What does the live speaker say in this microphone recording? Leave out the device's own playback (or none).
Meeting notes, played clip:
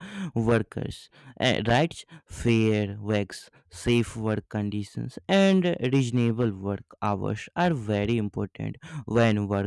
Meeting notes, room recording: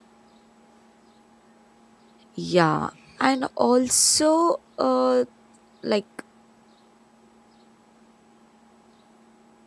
yeah and also uh, like